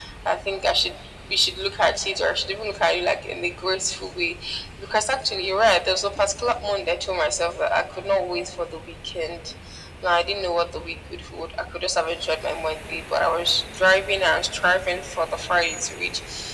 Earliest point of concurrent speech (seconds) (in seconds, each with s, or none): none